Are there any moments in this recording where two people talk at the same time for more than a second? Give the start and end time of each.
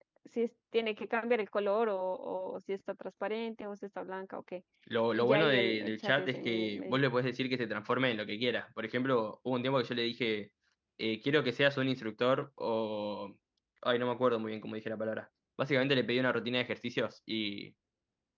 5.1-7.0

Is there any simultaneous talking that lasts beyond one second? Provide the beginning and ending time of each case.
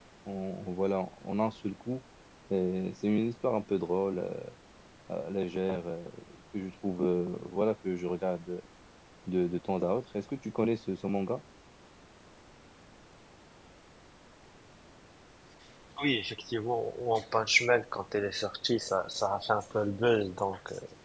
none

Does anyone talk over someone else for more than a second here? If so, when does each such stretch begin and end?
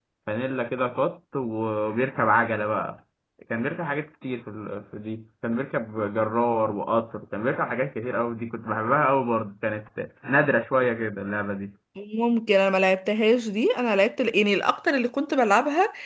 none

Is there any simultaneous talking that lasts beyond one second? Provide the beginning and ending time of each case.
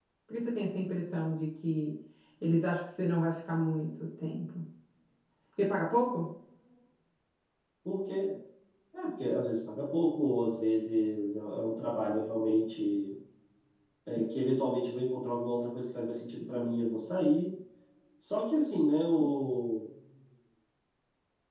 none

